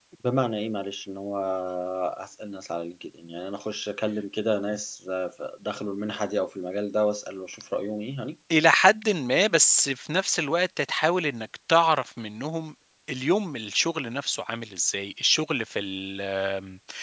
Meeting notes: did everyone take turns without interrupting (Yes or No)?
Yes